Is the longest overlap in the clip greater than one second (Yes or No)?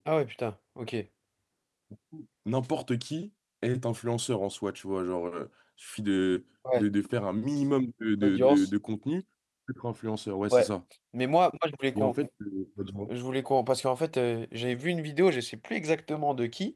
No